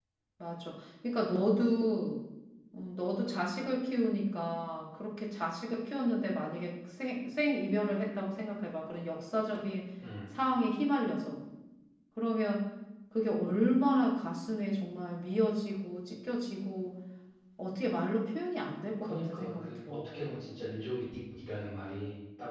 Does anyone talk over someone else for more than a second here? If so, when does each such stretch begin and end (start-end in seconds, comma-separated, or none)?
19.0-20.2